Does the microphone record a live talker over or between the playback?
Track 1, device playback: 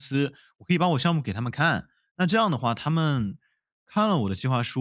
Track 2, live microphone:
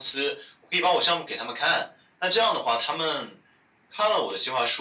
No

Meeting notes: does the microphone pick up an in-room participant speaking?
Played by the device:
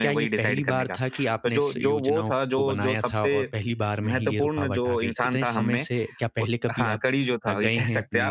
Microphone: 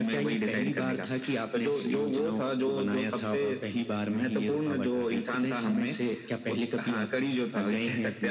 No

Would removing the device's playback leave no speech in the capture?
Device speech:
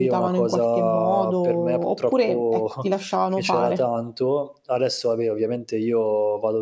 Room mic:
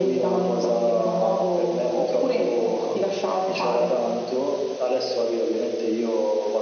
Yes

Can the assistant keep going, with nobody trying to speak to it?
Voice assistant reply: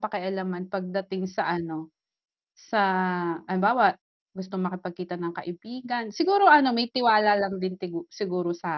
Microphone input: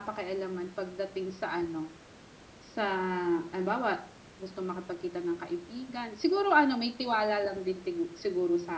Yes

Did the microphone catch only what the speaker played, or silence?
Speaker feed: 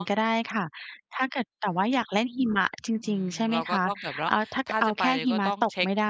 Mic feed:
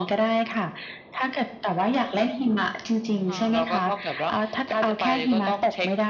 No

